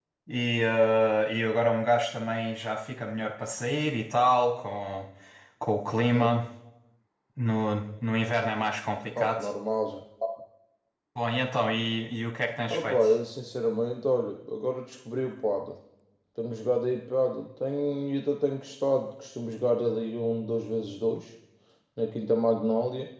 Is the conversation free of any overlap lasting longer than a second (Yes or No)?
Yes